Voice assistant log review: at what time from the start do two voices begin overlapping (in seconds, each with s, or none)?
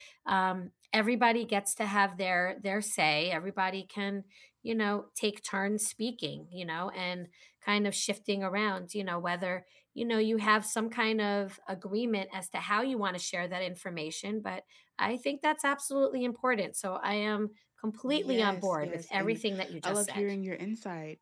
18.1 s